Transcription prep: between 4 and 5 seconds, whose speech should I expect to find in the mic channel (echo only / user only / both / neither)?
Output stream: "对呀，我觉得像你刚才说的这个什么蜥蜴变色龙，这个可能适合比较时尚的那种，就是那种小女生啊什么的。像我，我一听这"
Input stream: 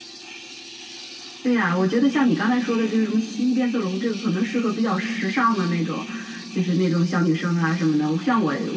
echo only